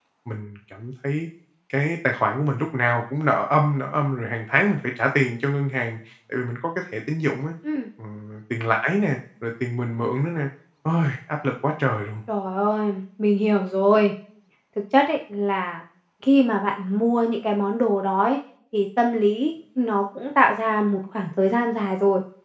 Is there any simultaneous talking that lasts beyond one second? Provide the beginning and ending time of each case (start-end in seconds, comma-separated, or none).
none